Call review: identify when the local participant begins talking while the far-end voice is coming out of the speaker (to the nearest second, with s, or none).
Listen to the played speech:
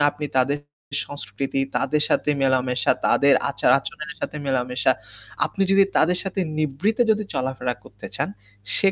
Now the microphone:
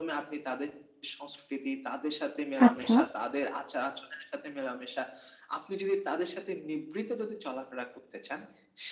3 s